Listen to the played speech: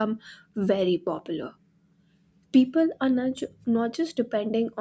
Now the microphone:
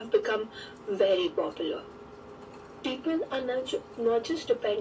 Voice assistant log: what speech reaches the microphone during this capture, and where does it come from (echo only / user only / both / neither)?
echo only